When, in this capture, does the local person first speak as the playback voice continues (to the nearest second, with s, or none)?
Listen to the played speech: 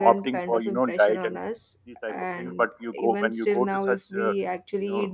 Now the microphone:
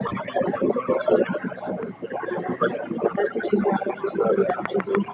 none